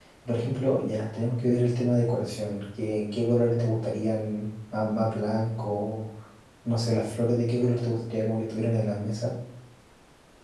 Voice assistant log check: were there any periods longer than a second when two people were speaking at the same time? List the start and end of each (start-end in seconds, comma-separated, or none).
none